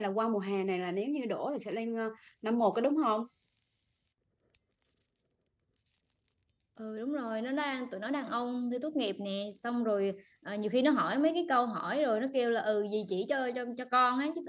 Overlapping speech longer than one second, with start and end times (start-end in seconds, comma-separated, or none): none